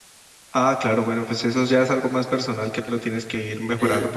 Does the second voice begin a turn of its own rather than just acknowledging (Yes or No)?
Yes